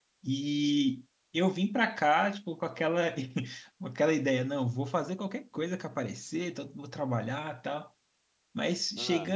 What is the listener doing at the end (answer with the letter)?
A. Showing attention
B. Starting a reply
A